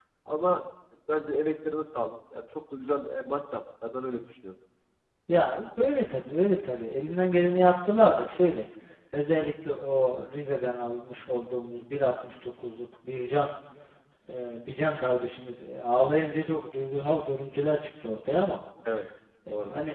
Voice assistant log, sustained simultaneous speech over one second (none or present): none